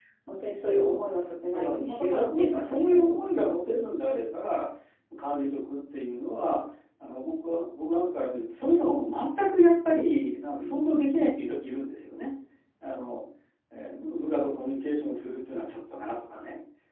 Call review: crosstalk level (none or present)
present